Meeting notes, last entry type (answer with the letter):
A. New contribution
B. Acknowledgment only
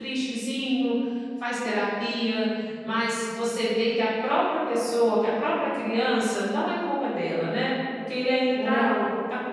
B